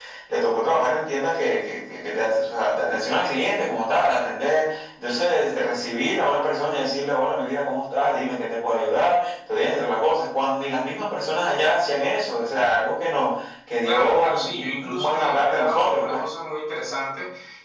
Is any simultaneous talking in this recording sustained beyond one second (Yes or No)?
Yes